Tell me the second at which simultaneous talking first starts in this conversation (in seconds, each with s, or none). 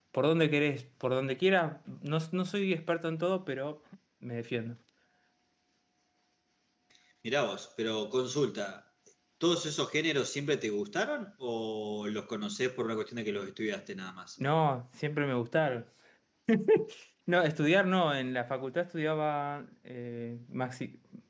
none